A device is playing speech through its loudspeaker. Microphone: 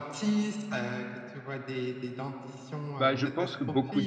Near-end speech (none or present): present